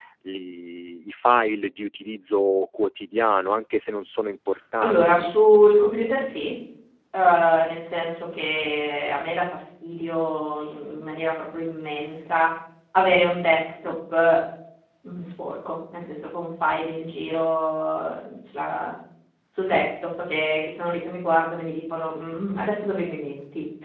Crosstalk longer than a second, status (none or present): none